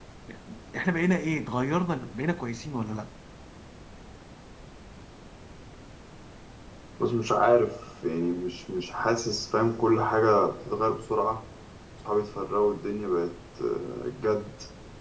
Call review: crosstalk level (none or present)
none